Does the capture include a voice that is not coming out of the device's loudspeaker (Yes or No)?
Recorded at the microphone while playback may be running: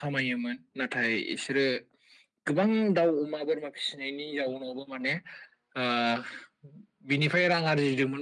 No